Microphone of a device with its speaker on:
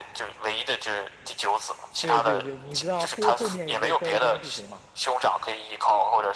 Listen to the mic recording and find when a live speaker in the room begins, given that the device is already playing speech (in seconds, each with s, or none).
2.0 s